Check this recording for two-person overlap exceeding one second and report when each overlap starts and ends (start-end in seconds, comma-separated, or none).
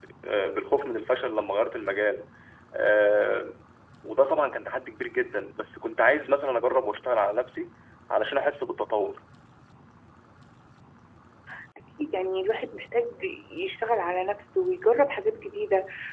none